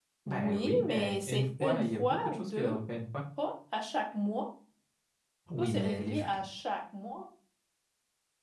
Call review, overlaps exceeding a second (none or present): present